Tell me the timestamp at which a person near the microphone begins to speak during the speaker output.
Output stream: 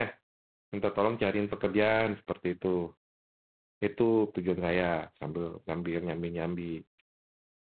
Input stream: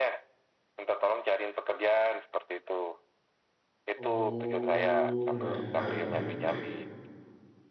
4 s

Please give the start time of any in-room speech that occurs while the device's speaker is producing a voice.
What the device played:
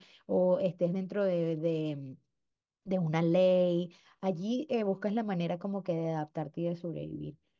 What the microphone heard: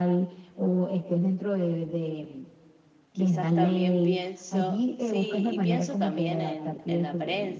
3 s

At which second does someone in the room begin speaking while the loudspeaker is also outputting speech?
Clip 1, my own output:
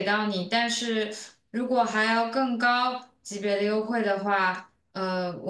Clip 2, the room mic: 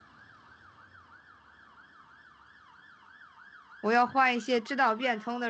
4 s

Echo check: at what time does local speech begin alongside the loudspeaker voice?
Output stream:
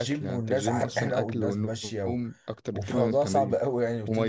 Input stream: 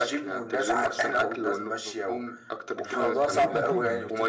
3 s

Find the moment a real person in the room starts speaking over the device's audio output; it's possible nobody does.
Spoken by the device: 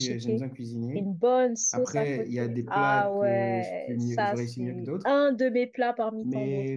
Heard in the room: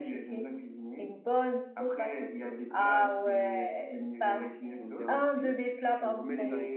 4 s

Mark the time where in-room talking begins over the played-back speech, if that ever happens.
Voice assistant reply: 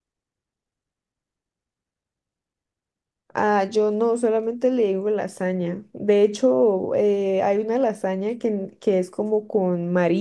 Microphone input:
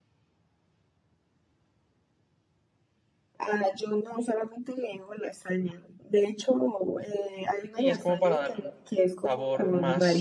8 s

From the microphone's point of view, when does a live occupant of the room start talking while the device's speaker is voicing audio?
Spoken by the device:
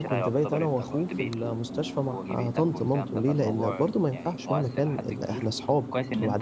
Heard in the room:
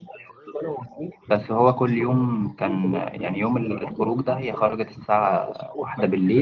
1 s

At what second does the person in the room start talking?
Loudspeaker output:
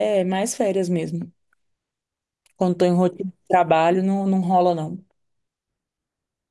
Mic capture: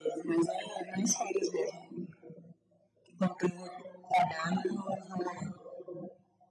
none

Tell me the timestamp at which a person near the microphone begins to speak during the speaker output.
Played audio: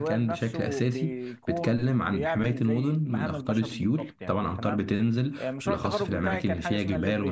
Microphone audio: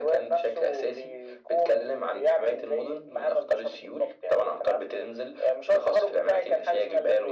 none

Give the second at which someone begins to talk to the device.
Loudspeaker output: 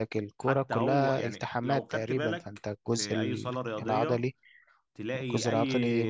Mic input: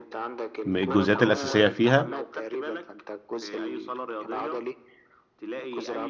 1 s

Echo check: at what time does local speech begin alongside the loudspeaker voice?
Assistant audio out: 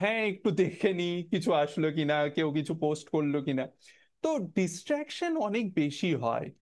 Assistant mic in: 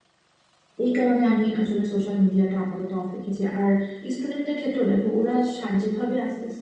1 s

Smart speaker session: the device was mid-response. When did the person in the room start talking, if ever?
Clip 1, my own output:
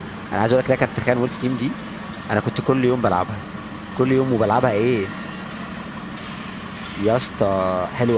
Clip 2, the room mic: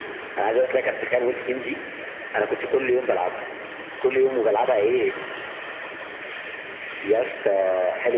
none

